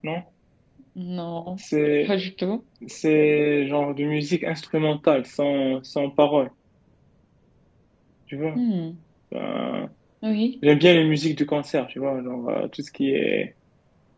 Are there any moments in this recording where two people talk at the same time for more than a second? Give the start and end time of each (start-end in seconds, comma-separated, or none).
none